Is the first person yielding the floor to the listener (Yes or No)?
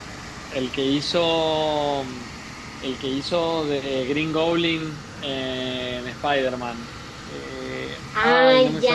Yes